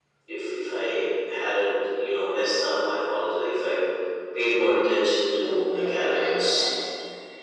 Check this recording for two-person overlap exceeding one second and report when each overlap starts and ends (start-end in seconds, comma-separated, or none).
5.4-6.7